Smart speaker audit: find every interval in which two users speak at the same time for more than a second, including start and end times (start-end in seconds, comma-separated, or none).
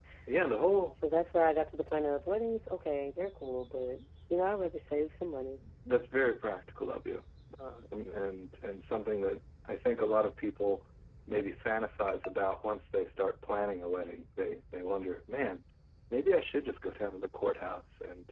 none